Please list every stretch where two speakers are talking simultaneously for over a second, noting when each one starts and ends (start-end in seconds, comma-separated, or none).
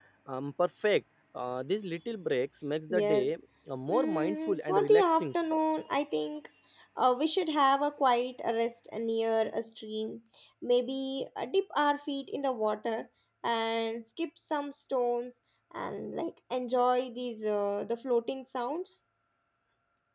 3.9-5.3